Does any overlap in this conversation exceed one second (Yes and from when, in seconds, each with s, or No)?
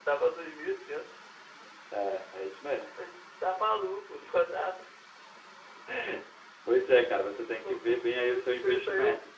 Yes, from 7.6 s